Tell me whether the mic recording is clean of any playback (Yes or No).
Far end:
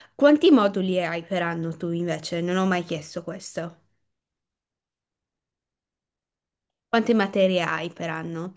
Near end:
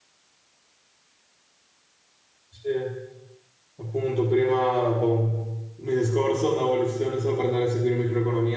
Yes